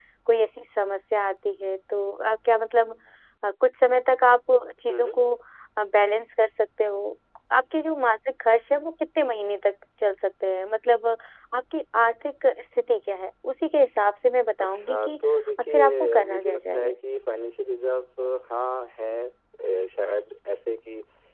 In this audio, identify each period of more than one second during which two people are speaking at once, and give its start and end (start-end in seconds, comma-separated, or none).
15.6-17.0